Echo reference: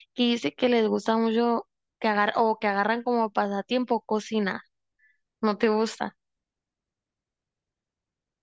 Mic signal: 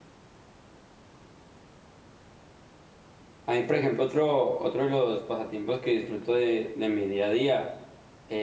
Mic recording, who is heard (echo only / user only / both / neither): user only